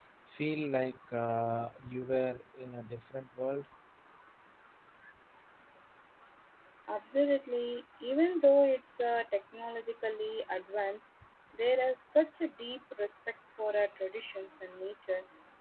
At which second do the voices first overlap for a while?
none

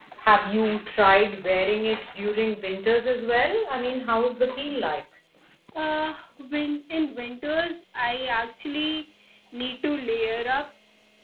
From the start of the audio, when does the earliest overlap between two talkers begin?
none

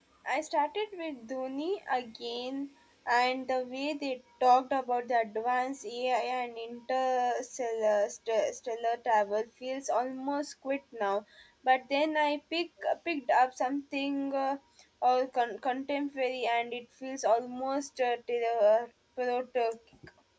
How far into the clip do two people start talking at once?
none

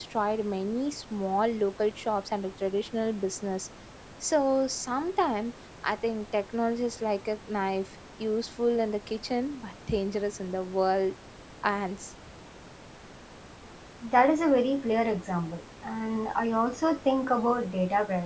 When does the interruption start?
none

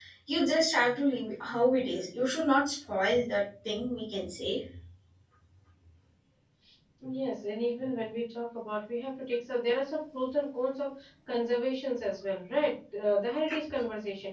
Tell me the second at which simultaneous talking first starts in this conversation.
none

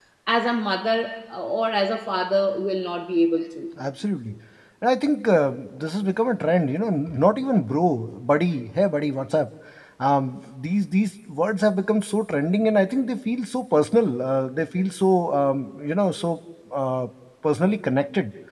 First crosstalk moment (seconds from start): none

